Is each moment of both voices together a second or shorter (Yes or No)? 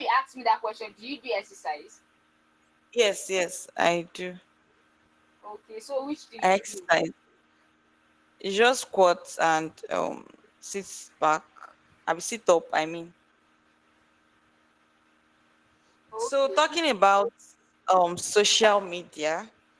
Yes